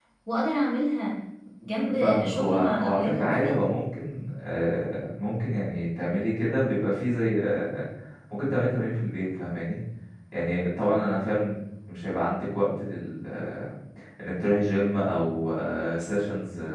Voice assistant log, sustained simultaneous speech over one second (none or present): present